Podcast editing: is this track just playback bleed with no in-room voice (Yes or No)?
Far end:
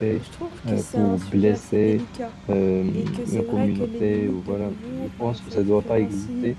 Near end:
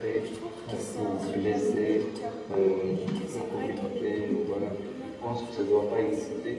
Yes